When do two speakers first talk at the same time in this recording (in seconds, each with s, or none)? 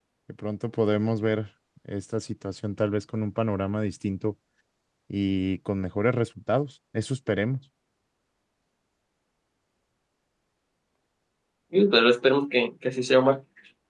none